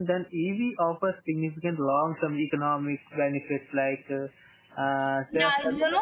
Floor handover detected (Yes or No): Yes